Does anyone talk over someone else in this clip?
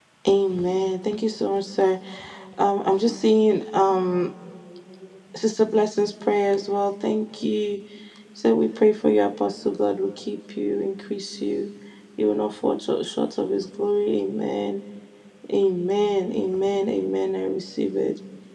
No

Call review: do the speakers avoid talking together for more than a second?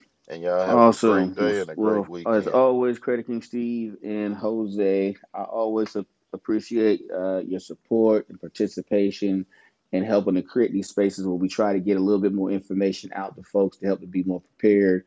No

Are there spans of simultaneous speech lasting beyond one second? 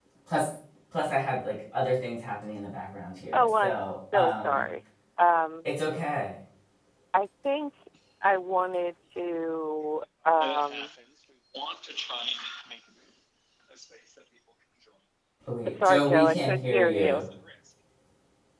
Yes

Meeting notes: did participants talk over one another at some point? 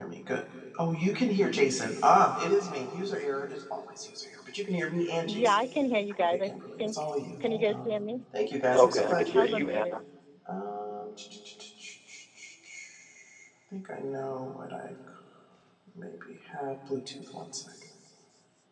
Yes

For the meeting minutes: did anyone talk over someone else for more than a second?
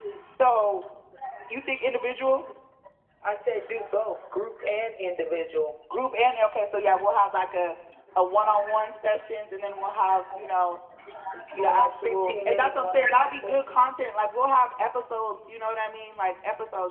Yes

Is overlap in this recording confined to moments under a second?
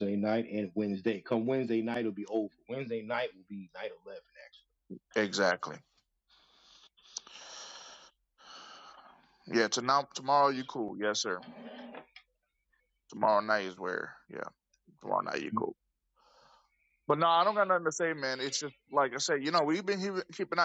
Yes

